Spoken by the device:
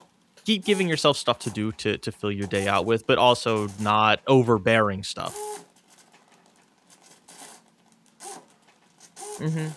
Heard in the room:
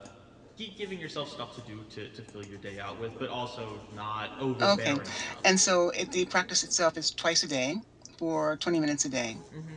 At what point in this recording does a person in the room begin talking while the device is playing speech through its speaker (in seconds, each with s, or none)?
4.6 s